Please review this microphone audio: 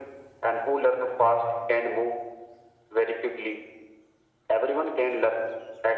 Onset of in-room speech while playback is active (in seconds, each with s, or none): none